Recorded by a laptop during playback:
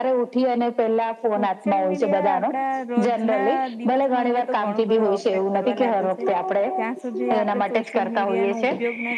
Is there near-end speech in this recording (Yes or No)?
Yes